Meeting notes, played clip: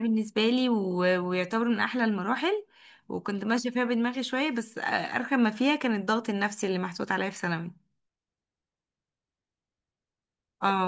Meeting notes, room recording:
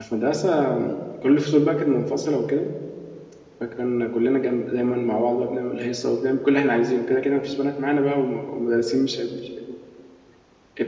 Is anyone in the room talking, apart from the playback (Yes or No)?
Yes